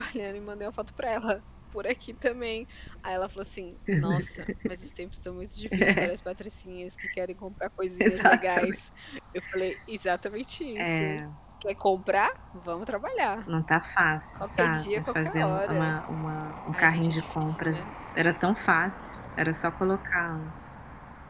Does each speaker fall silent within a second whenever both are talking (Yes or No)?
No